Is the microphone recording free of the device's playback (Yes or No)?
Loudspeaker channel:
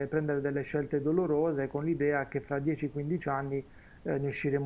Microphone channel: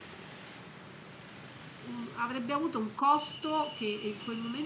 Yes